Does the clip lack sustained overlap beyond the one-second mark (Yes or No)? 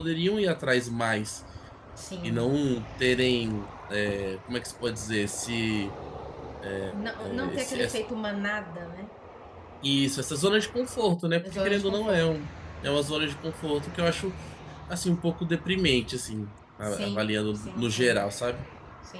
No